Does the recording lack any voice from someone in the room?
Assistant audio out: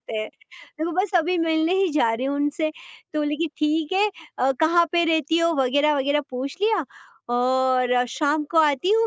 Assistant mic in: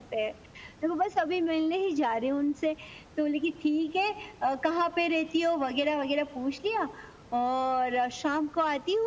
Yes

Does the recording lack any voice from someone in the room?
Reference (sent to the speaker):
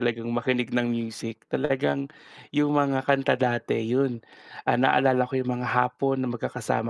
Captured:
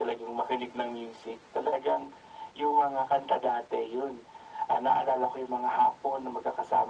Yes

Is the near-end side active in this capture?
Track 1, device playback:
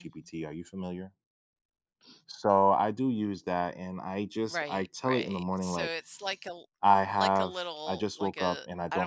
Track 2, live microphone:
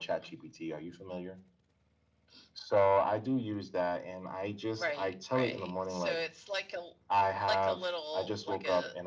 No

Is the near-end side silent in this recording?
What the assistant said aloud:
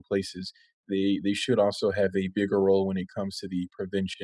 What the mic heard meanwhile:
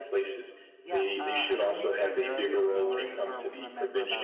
No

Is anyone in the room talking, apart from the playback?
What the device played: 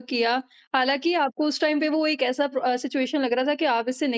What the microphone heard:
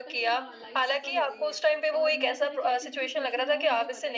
Yes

